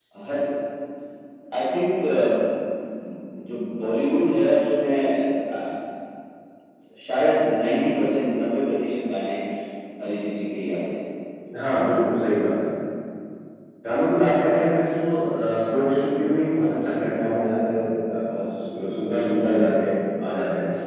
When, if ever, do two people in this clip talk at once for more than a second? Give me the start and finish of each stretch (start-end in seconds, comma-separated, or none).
none